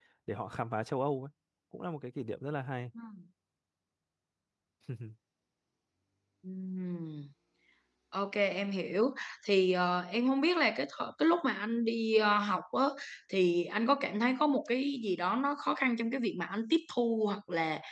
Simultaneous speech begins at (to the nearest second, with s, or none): none